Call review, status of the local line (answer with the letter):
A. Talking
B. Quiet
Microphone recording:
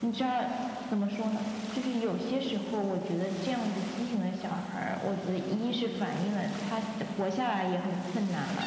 B